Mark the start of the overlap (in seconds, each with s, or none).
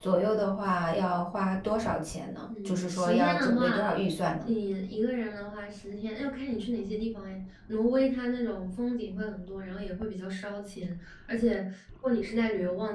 2.5 s